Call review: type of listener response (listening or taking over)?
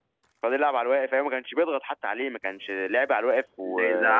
taking over